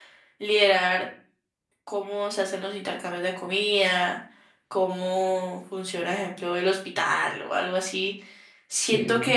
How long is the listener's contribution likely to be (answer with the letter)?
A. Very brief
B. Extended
A